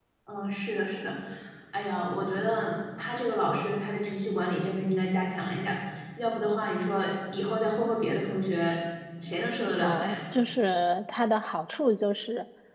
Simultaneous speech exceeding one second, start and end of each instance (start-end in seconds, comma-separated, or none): none